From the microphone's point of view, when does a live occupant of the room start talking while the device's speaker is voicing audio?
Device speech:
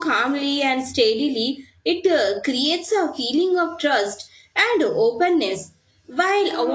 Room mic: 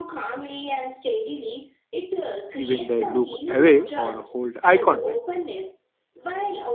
2.6 s

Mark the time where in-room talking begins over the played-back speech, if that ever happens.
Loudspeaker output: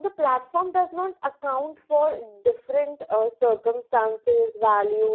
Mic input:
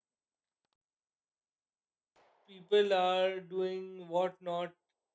2.5 s

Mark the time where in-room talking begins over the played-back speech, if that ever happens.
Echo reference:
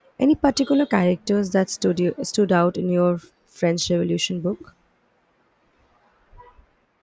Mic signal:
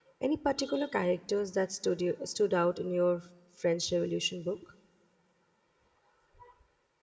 none

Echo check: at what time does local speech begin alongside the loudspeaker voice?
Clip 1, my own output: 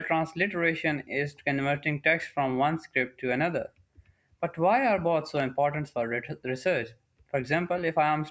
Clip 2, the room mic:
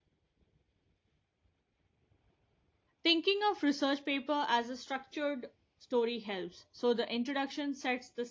3.0 s

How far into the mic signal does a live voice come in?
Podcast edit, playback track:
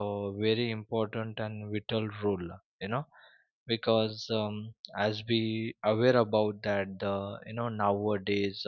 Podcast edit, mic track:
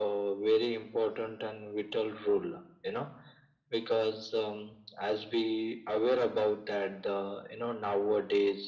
none

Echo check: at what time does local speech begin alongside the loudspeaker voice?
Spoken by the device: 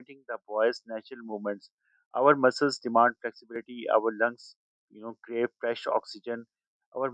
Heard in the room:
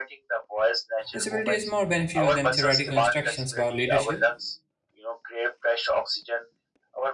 1.1 s

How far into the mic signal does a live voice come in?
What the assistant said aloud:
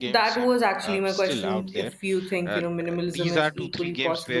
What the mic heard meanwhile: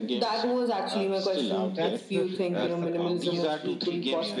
1.7 s

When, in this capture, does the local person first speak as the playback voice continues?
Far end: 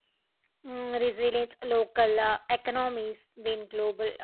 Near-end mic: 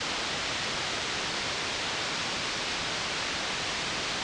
none

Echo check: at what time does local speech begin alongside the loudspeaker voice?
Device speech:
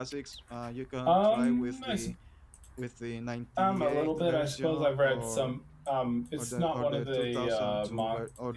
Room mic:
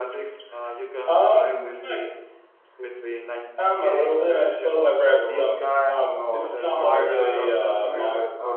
4.9 s

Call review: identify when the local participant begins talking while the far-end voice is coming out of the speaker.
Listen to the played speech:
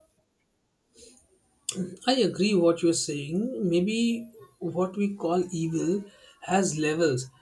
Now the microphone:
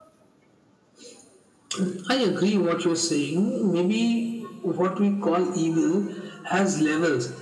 none

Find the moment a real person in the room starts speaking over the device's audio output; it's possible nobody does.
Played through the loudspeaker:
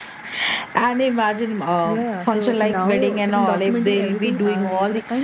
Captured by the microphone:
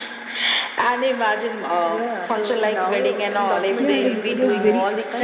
3.8 s

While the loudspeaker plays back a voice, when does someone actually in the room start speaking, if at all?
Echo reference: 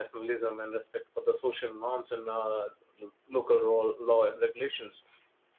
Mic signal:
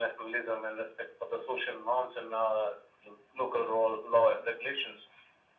none

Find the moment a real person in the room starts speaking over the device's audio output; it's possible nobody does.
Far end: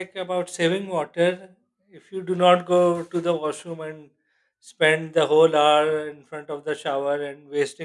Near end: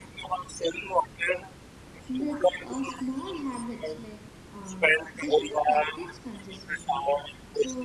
2.1 s

